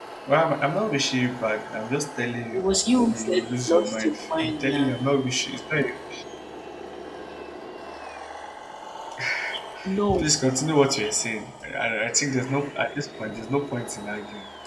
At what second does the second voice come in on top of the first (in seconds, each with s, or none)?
3.1 s